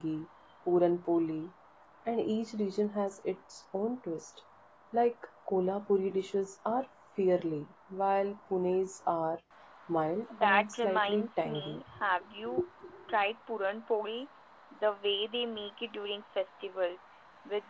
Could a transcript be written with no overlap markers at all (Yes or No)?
No